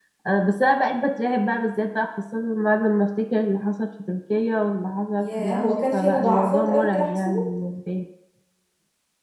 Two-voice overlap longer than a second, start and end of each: 5.2-7.5

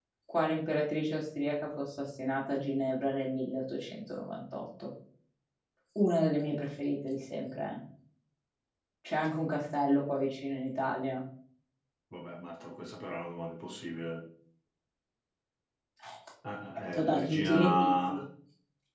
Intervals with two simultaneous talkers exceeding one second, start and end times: 16.8-18.2

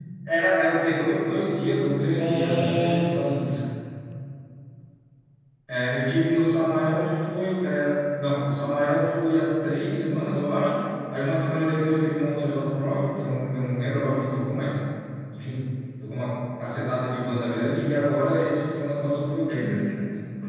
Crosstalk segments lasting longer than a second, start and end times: 2.2-3.5

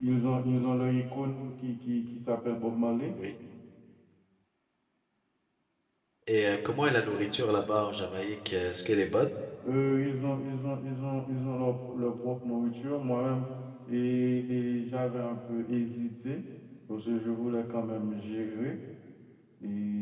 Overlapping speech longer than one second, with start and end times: none

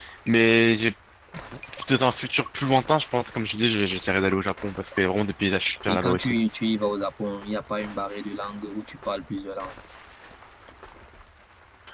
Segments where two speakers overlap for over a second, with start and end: none

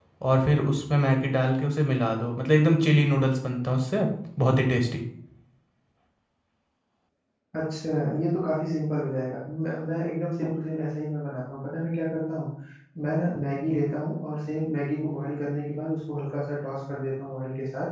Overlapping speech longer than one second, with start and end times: none

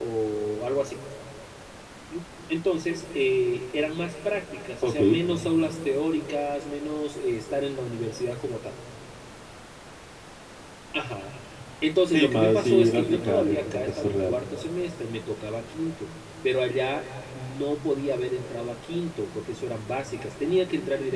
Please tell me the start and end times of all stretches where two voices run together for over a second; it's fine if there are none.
12.1-14.4

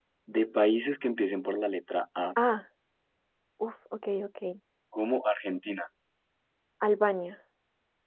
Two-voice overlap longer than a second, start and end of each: none

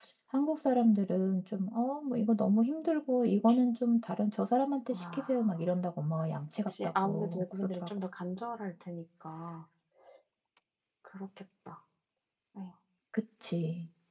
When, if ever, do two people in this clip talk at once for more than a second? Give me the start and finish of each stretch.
6.7-7.9

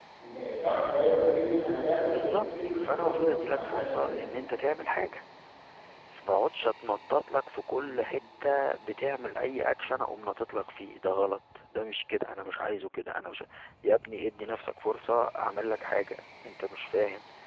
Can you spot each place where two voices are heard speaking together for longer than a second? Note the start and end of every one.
2.1-4.1

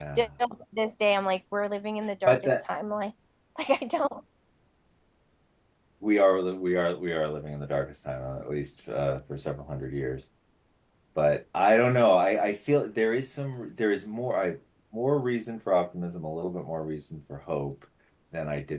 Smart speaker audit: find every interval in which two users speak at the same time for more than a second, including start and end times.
none

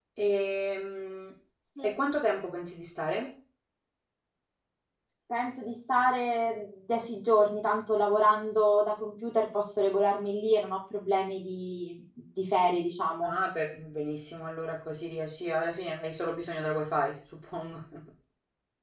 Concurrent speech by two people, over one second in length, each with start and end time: none

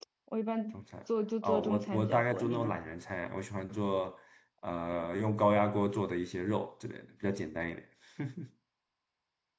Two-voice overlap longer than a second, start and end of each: 1.4-2.8

